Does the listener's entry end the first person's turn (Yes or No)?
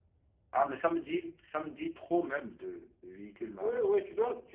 Yes